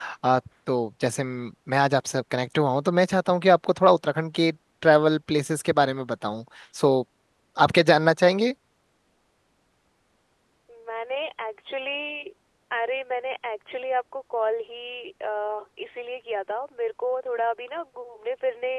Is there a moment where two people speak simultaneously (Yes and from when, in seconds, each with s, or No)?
No